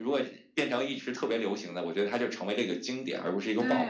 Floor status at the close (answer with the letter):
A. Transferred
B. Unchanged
A